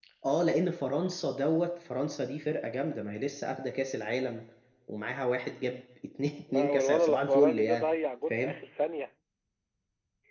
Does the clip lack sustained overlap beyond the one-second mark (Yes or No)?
No